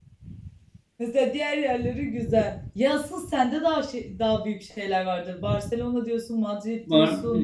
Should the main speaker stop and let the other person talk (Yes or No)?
Yes